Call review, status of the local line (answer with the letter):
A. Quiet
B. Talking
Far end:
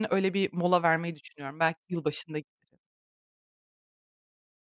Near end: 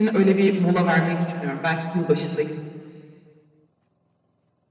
A